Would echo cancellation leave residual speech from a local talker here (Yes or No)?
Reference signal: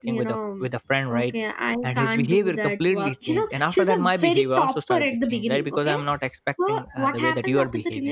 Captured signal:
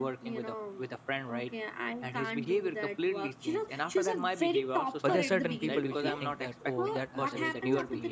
Yes